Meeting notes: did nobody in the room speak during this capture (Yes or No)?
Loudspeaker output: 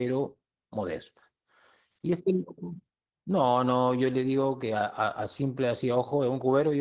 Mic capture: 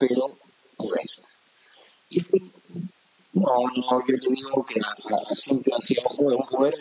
Yes